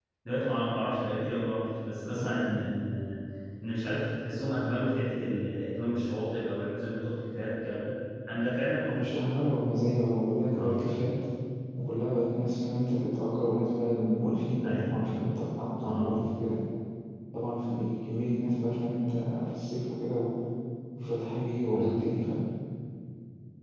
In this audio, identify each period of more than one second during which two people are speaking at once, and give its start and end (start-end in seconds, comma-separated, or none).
none